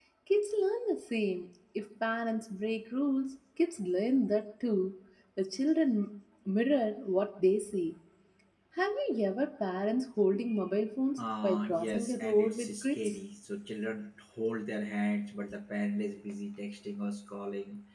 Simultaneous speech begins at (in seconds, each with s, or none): 11.2 s